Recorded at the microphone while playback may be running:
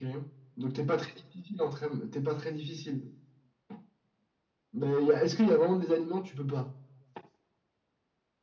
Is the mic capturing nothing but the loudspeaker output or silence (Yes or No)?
Yes